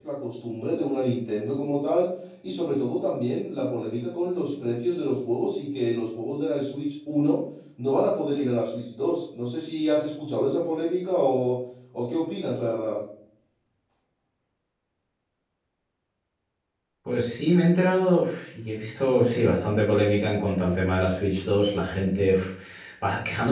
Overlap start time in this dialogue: none

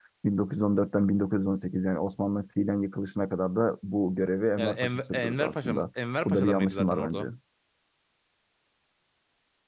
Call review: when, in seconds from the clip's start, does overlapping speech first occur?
5 s

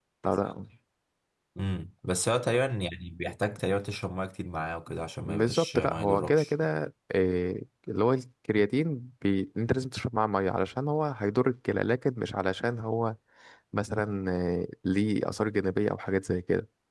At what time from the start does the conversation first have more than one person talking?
5 s

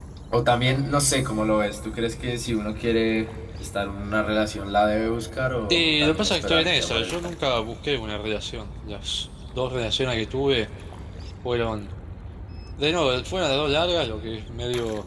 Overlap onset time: 6 s

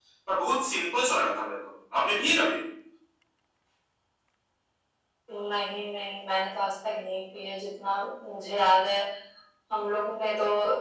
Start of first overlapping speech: none

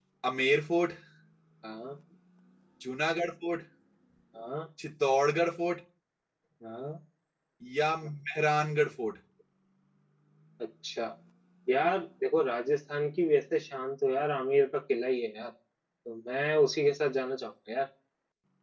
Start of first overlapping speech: none

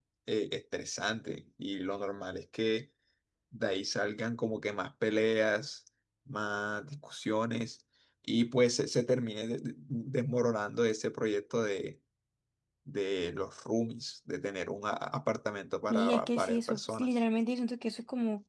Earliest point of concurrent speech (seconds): 16 s

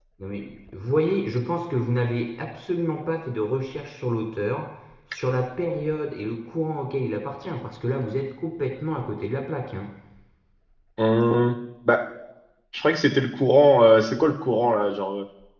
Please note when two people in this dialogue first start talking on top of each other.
none

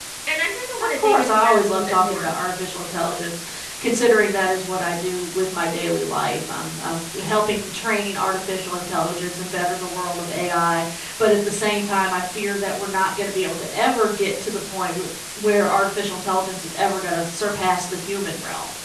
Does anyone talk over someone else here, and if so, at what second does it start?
1 s

